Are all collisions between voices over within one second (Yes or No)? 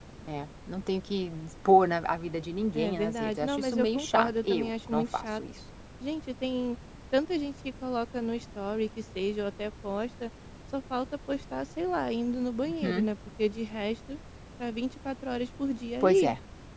No